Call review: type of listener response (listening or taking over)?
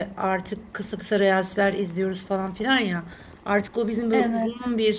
listening